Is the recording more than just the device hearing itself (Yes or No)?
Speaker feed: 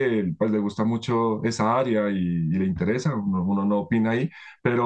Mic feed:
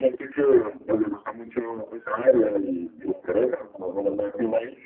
No